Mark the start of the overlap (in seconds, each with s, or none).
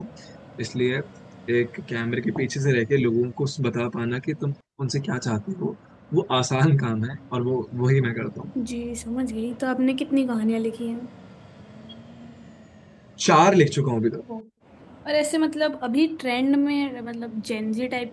none